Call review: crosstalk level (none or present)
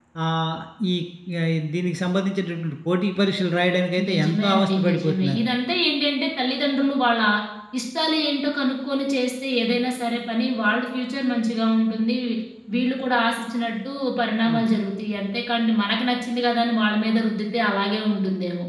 present